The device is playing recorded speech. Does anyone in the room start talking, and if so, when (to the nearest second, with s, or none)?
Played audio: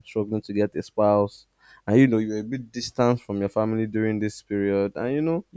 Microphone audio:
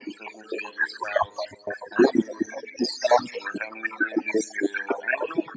none